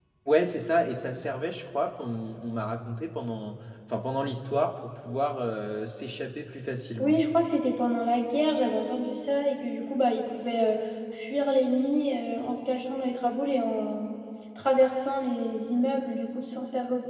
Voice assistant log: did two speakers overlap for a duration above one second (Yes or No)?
No